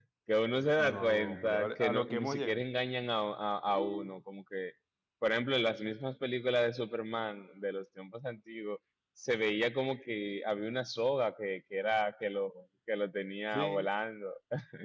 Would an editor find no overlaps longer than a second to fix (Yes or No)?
No